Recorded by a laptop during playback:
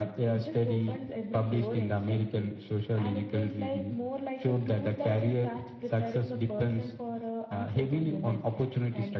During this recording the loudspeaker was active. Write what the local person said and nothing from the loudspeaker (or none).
none